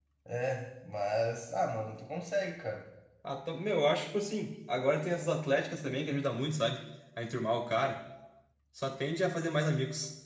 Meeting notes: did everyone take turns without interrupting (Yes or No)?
Yes